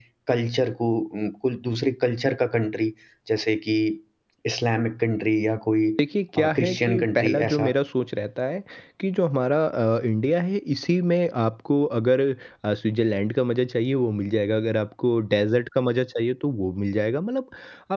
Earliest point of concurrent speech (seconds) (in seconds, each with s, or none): 6.4 s